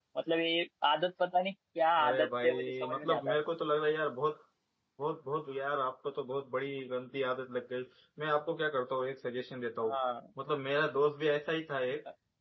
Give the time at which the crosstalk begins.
2 s

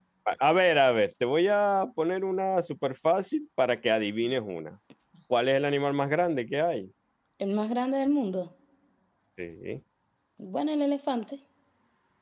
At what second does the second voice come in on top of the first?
none

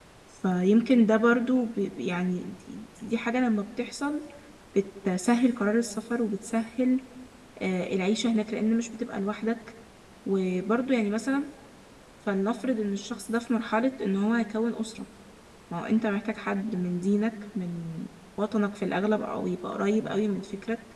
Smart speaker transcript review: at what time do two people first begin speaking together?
none

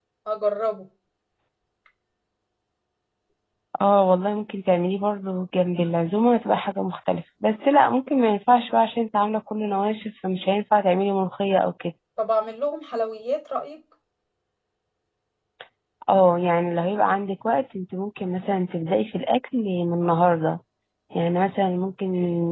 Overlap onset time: none

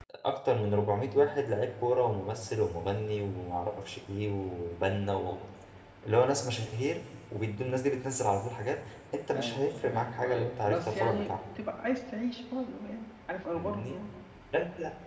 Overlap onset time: 9 s

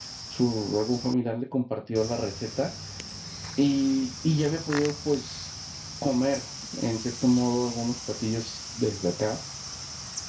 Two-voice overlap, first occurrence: none

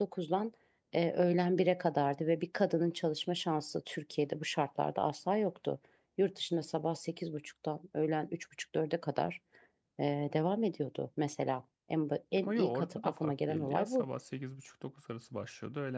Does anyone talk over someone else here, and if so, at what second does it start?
12 s

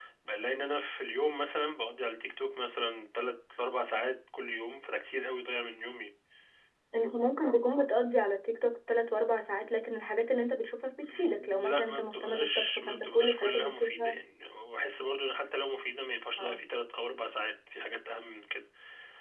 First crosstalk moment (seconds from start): 11 s

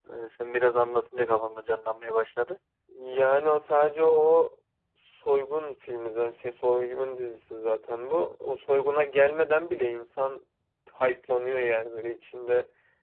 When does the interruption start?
none

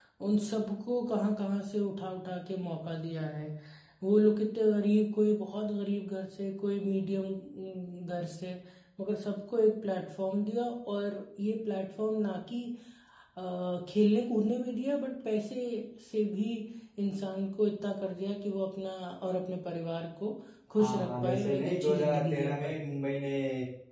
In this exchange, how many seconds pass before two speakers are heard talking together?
21 s

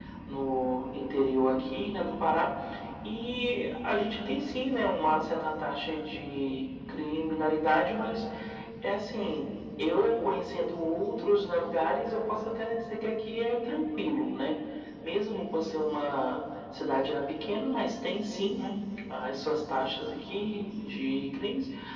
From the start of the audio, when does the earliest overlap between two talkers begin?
none

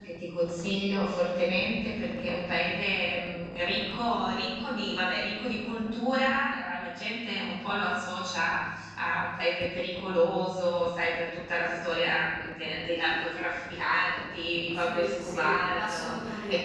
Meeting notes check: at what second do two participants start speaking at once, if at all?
15 s

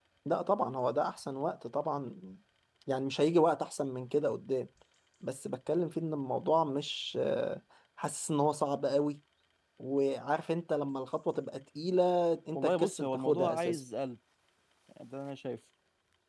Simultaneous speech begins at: 13 s

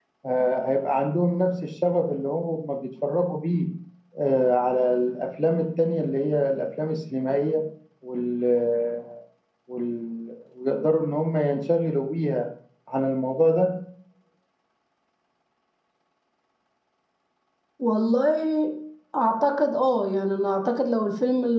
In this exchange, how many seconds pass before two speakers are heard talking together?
none

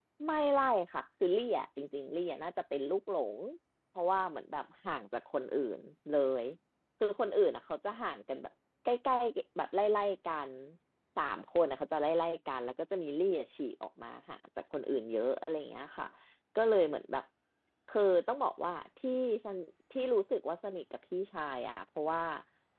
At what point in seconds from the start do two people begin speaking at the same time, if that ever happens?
none

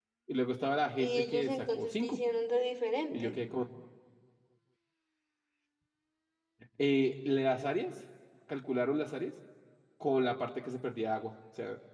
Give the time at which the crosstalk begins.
1 s

